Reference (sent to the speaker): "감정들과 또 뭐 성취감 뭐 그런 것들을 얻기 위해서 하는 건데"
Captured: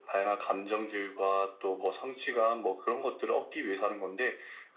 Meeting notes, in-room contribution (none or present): none